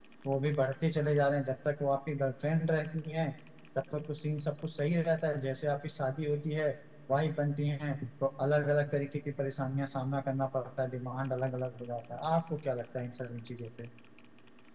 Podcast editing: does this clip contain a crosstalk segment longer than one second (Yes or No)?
No